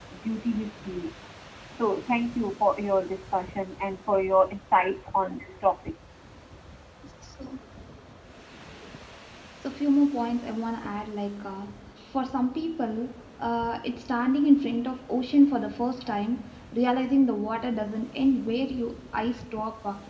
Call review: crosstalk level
none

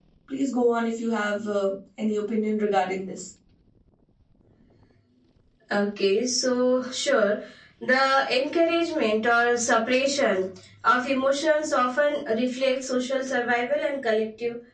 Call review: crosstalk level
none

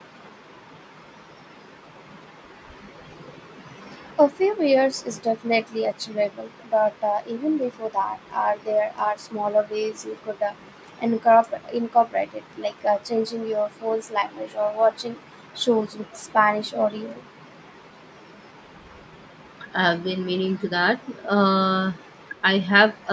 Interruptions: none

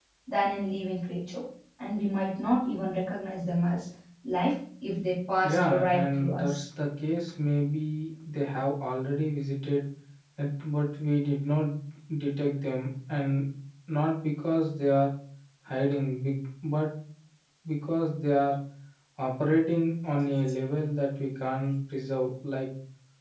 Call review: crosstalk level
present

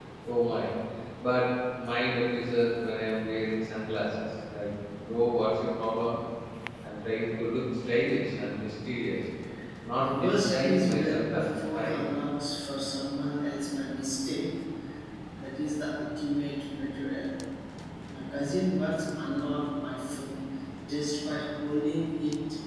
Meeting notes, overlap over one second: present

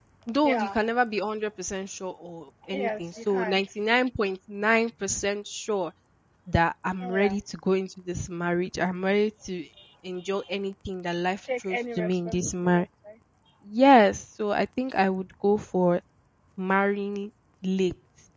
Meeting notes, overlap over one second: present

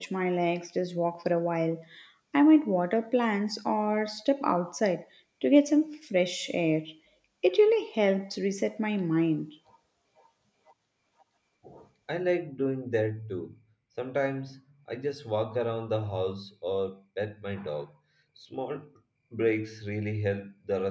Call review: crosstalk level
none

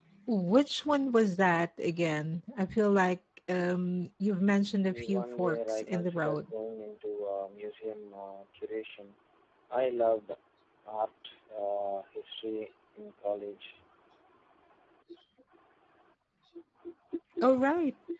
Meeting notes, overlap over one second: present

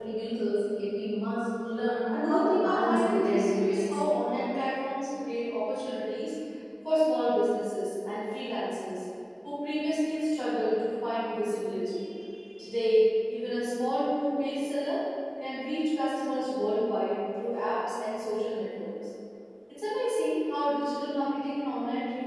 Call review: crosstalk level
present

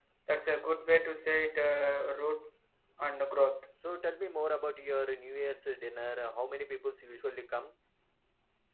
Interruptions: none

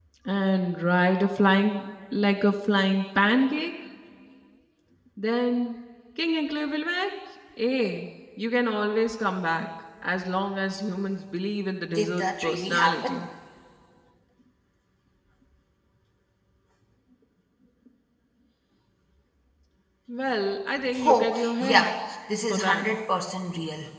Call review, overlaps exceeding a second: present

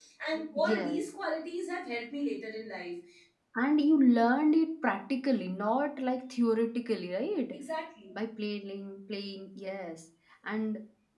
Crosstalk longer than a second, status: none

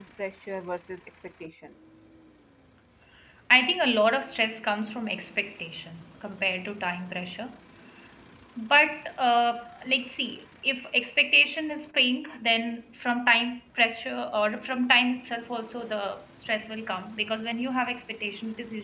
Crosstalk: none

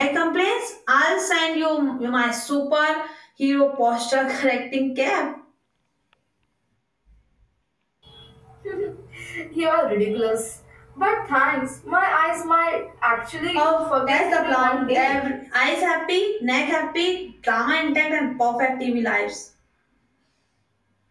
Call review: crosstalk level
present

